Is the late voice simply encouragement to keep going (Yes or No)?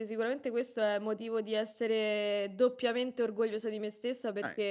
Yes